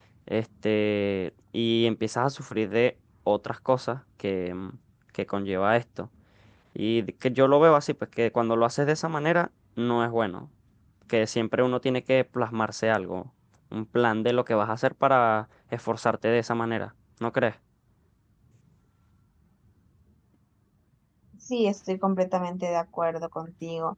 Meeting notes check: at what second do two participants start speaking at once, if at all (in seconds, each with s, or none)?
none